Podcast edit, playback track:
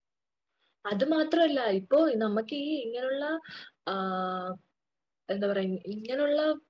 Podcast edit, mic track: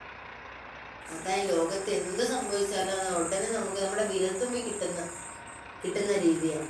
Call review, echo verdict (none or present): none